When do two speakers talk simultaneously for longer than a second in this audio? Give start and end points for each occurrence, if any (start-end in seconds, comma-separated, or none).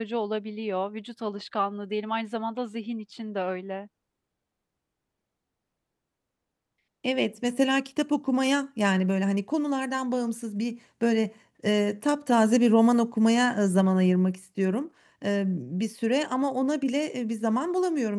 none